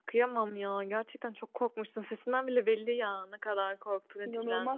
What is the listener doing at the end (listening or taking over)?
taking over